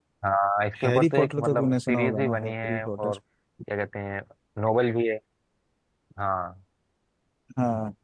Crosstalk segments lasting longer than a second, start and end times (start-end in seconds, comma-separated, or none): 0.8-3.1